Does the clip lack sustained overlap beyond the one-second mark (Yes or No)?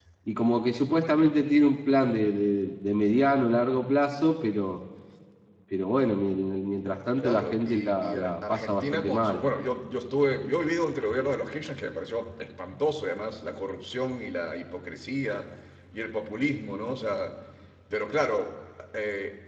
No